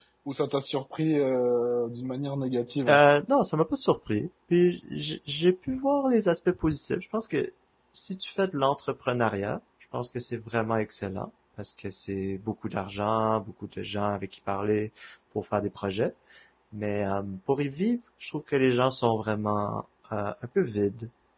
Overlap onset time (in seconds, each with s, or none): none